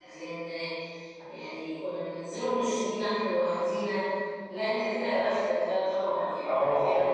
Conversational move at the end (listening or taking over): taking over